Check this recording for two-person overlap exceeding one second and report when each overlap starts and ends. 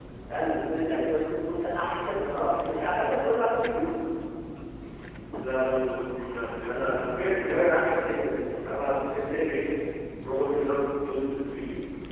none

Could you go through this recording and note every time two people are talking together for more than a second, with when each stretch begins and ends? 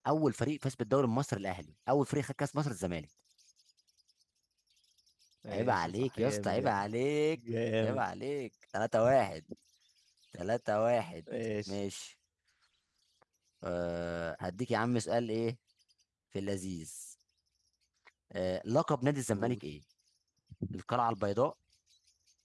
5.5-6.8

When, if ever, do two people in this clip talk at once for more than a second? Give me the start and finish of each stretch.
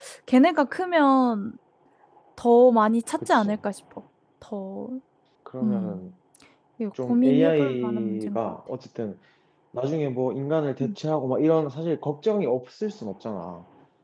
7.1-8.5

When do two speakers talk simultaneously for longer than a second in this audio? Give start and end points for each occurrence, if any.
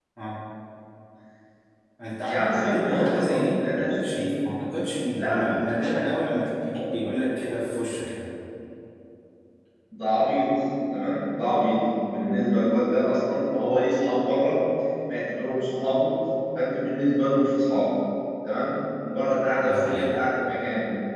2.3-4.3

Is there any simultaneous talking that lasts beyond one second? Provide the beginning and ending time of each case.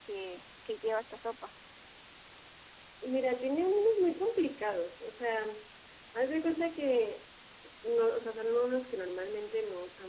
none

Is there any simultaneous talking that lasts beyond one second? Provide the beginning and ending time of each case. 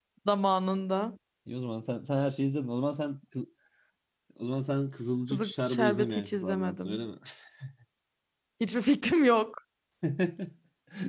5.3-7.0

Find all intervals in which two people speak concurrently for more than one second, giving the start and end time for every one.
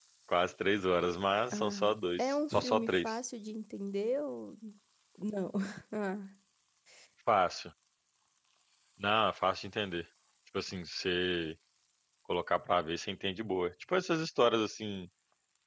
1.5-3.2

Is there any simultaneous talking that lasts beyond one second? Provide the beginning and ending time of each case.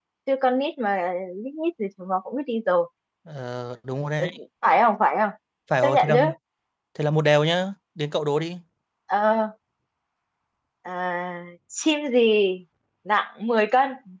none

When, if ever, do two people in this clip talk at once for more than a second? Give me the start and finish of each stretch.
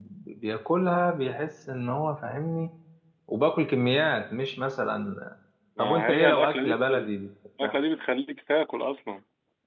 5.8-7.1

